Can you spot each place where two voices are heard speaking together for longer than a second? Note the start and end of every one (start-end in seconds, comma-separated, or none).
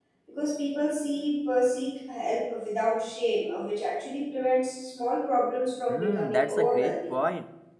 5.9-7.1